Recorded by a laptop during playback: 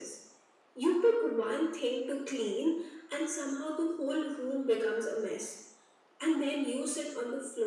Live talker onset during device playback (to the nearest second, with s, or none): none